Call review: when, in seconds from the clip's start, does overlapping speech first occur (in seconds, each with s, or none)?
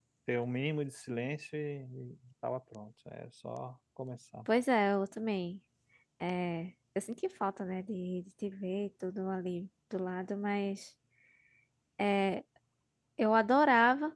none